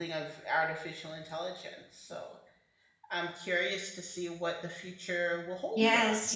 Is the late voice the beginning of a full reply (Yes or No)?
Yes